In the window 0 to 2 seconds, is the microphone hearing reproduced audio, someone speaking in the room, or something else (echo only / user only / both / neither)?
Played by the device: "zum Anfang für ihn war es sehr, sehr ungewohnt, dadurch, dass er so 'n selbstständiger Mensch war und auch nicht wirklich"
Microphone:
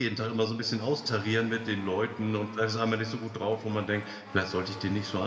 user only